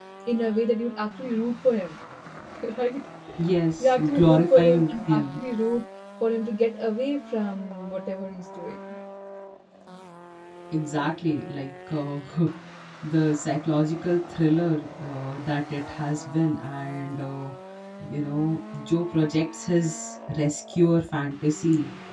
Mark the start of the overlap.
3.8 s

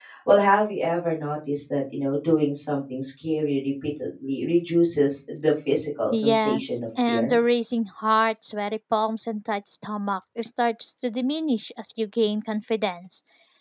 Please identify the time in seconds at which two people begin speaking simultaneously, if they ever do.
6.1 s

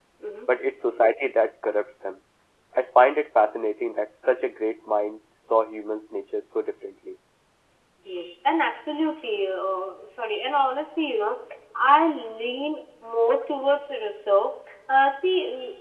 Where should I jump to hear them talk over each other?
none

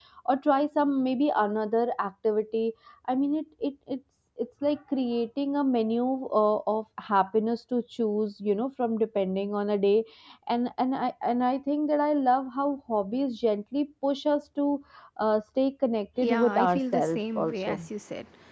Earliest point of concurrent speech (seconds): 16.2 s

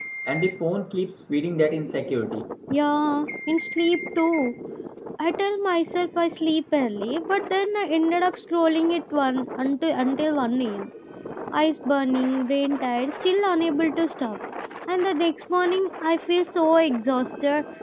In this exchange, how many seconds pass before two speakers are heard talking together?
none

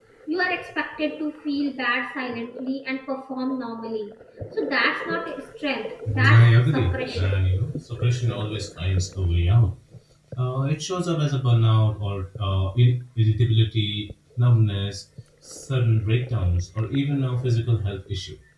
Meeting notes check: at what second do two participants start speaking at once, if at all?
6.1 s

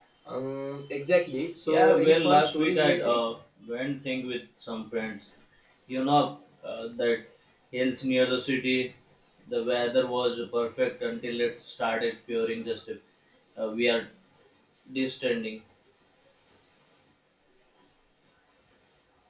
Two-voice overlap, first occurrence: 1.7 s

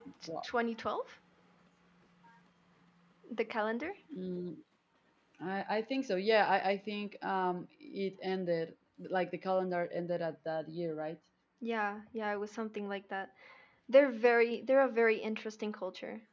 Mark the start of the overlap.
none

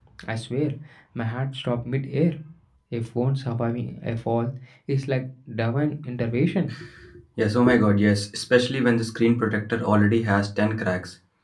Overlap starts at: none

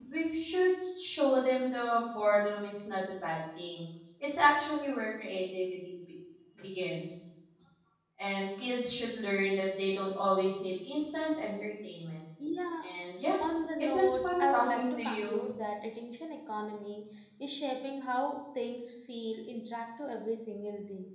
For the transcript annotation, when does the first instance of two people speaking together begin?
13.9 s

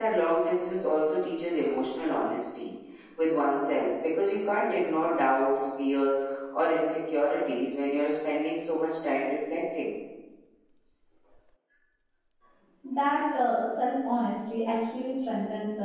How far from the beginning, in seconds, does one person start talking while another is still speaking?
none

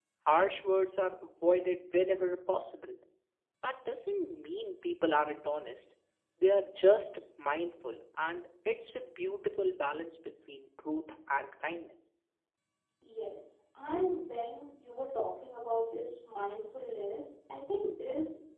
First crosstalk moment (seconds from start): none

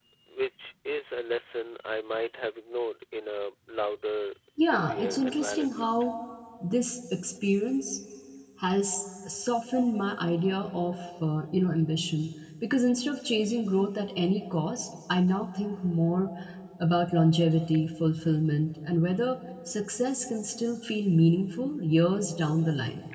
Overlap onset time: 4.6 s

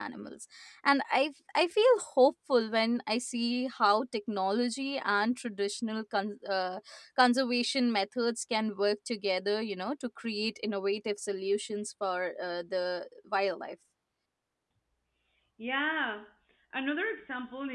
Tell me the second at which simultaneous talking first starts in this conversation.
none

